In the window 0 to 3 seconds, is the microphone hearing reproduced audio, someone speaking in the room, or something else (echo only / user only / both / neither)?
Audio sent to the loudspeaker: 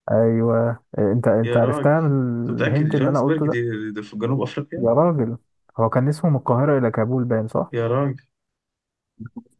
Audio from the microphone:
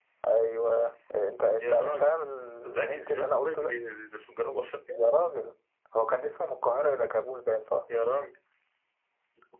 echo only